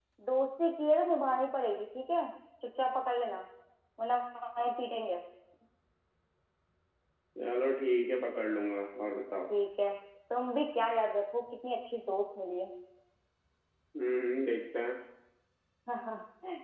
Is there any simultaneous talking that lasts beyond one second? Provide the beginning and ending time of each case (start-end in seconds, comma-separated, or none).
none